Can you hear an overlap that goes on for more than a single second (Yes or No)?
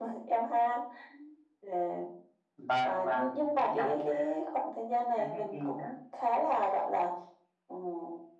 Yes